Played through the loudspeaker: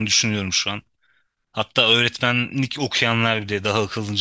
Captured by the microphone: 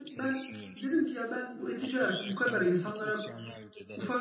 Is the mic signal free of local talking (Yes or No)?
No